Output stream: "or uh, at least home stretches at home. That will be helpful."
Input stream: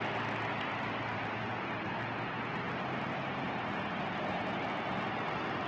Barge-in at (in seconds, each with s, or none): none